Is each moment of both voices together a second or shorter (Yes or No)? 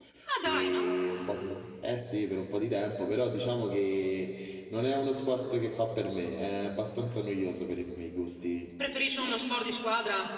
Yes